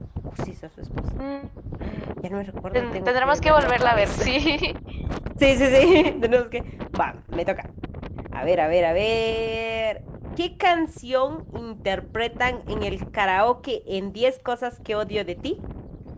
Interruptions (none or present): present